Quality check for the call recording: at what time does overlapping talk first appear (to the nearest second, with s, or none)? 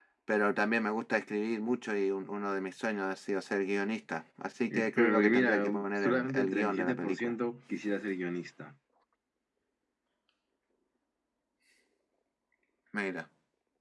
5 s